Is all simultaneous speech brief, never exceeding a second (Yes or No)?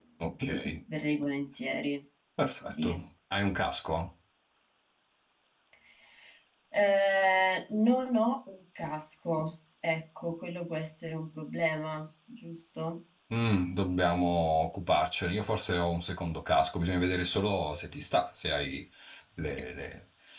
Yes